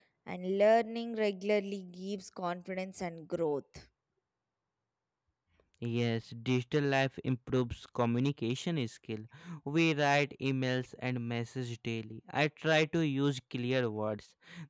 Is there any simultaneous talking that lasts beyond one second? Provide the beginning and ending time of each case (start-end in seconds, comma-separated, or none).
none